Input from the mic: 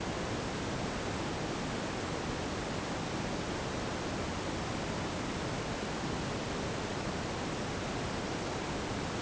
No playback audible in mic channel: Yes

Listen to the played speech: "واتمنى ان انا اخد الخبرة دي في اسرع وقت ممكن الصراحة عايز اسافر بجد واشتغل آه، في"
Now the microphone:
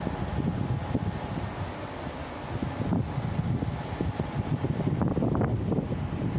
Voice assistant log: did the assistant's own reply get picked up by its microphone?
No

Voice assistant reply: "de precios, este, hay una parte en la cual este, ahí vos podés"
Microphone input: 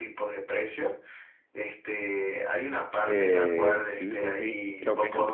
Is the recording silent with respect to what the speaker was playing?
No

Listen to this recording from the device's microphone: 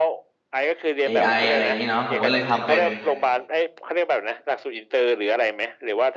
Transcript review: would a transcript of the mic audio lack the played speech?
No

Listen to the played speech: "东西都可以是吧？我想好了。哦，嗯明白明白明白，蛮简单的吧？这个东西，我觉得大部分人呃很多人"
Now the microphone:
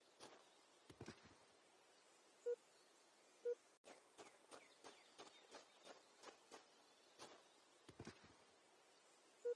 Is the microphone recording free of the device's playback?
Yes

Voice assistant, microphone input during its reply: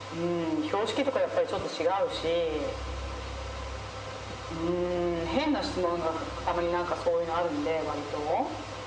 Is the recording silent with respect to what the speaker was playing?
No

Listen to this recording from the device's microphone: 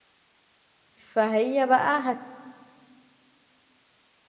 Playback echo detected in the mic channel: No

